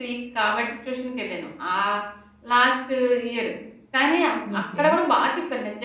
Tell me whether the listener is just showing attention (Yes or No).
Yes